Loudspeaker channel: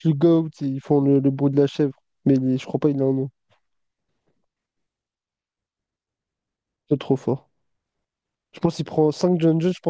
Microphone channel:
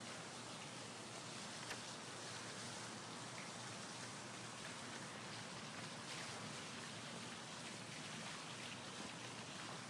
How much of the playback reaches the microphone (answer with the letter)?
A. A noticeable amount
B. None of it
B